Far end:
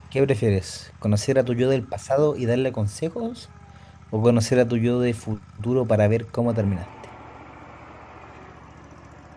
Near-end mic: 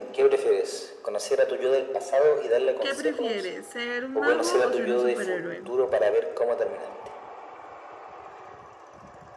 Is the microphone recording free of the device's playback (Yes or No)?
No